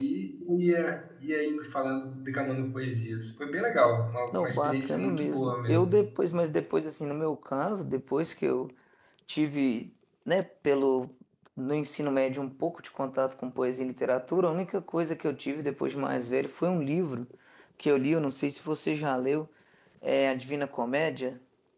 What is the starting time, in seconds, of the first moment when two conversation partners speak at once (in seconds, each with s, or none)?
4.3 s